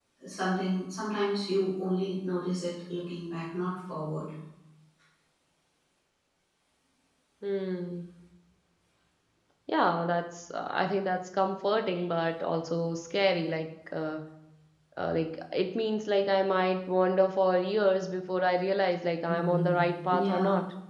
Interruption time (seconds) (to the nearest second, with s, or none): 19 s